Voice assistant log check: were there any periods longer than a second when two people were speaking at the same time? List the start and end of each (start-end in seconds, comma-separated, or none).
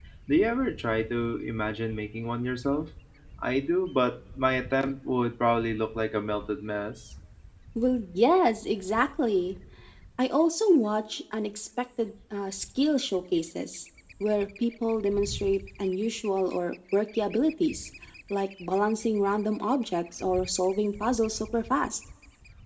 none